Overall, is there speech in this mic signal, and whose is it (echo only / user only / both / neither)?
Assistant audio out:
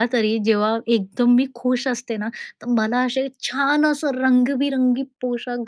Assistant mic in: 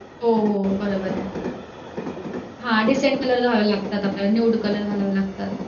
user only